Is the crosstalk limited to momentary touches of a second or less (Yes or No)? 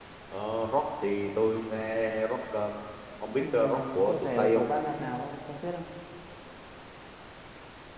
No